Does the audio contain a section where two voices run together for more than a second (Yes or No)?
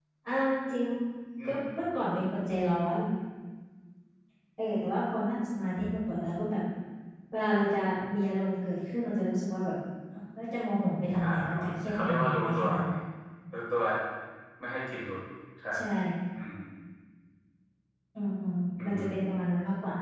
Yes